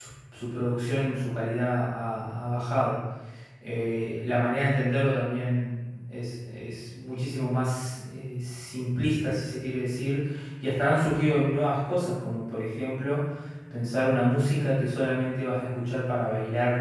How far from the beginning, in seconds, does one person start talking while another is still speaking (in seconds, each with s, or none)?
none